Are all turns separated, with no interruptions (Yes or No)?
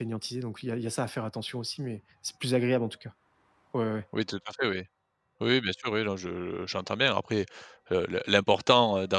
Yes